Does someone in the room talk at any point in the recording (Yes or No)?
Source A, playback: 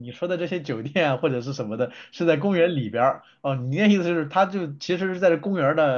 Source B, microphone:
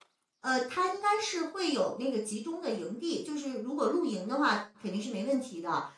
Yes